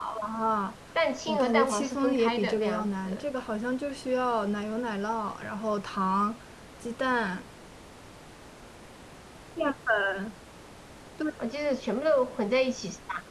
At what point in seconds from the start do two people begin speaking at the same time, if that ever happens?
1.3 s

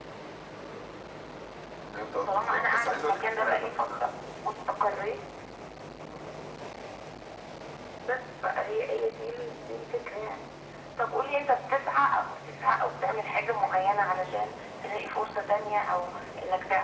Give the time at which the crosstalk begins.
2.2 s

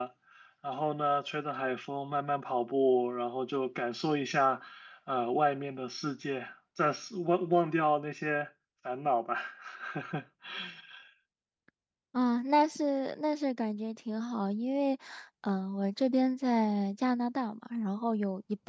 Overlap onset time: none

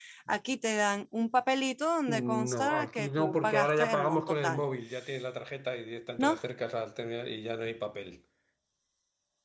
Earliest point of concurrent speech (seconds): 2.1 s

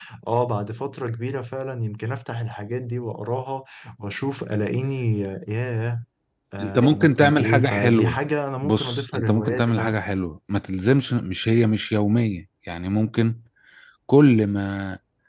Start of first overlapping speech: 6.6 s

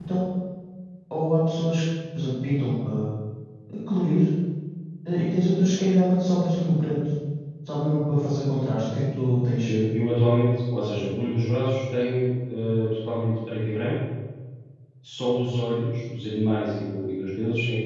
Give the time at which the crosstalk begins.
none

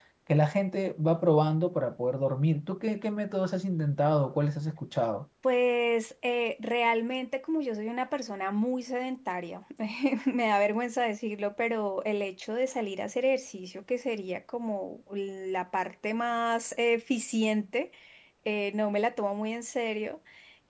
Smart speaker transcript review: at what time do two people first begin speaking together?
none

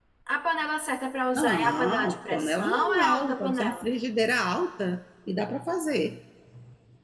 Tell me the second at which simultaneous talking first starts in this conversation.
1.4 s

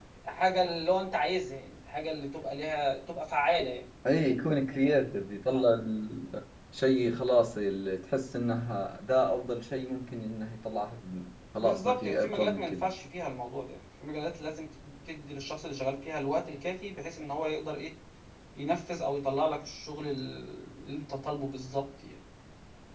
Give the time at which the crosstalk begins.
11.6 s

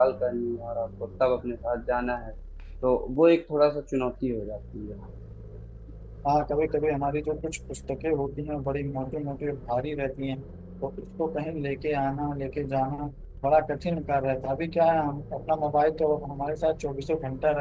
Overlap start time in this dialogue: none

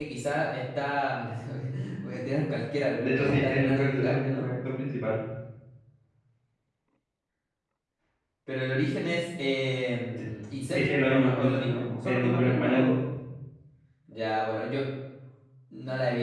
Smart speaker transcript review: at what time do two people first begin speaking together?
3.0 s

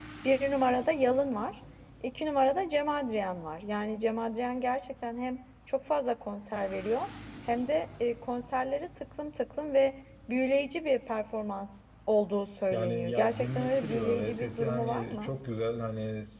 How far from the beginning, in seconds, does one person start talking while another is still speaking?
12.7 s

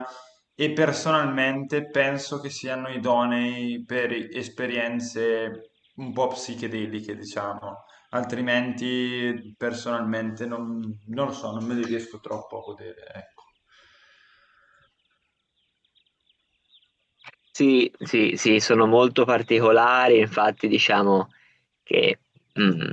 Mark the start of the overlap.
none

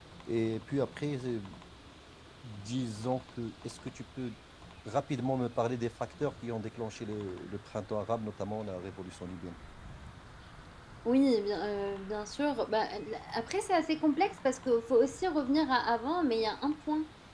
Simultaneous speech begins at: none

